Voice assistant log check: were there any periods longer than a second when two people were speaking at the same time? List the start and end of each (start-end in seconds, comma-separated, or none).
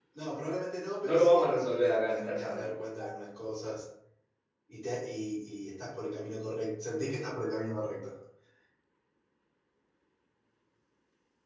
1.0-2.8